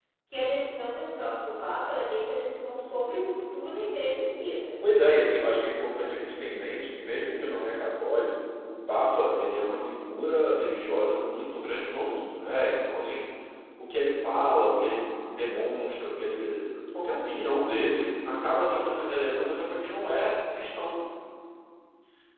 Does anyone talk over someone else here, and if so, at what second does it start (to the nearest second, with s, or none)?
none